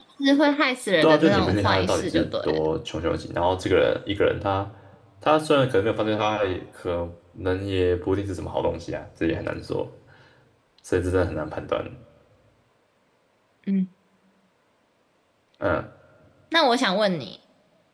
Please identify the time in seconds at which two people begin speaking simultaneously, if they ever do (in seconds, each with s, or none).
1.0 s